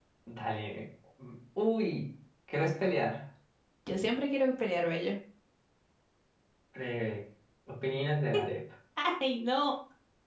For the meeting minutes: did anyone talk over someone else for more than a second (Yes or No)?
No